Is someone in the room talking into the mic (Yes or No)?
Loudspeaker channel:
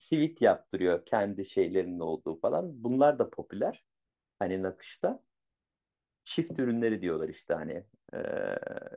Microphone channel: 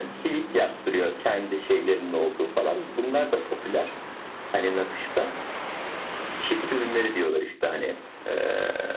No